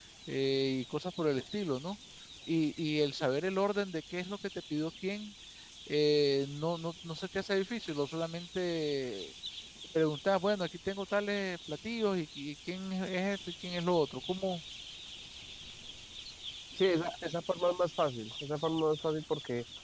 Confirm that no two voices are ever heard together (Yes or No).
Yes